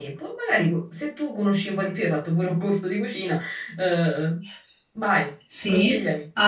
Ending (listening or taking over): taking over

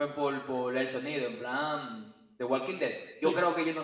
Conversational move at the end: listening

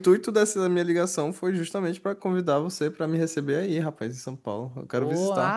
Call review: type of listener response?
taking over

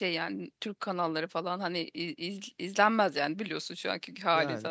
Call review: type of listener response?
listening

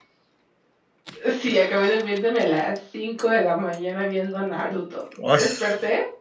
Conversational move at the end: listening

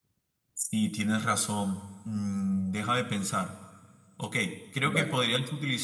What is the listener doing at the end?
listening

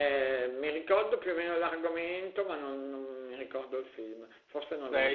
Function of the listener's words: taking over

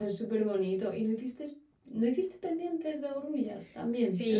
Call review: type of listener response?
taking over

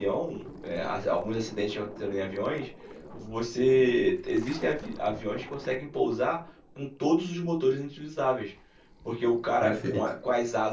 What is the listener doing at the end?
listening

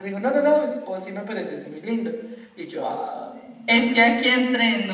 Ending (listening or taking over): taking over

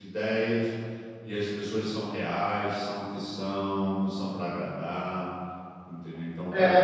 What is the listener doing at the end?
taking over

